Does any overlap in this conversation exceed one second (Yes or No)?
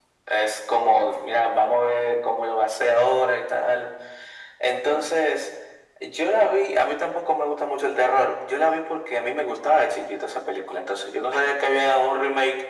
No